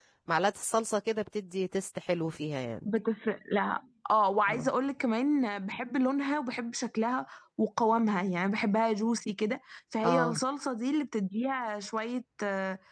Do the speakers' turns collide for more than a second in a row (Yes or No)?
No